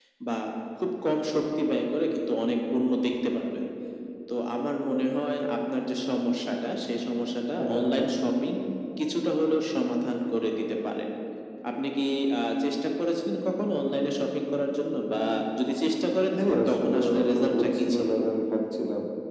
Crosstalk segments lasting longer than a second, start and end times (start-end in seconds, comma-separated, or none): 16.4-18.1